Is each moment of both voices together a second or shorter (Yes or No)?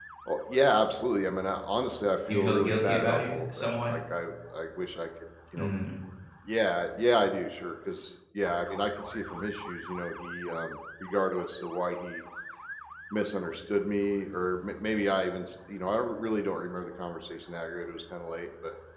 No